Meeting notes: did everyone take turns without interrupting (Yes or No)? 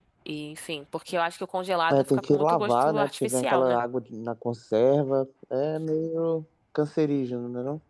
No